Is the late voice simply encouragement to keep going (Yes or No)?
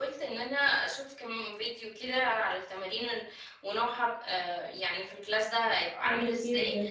Yes